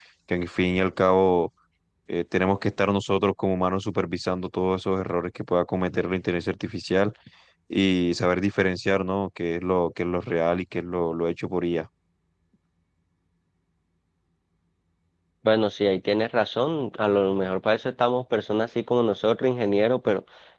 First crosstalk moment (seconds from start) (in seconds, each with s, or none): none